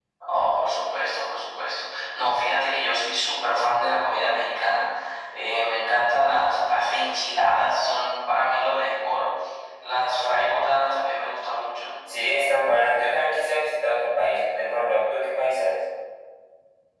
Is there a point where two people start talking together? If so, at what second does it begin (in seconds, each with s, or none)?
none